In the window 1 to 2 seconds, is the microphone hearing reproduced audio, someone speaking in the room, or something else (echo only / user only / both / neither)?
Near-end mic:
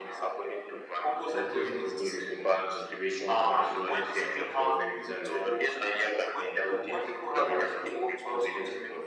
both